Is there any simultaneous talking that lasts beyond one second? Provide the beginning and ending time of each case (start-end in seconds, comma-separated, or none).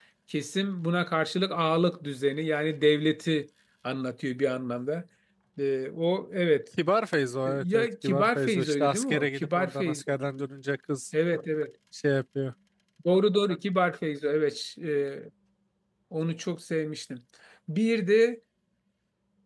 7.4-10.1